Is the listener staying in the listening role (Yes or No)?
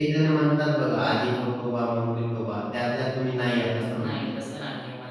No